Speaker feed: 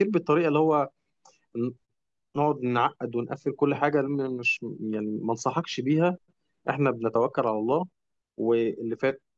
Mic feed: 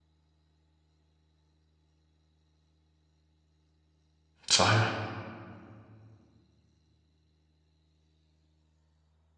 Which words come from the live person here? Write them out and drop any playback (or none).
صحيح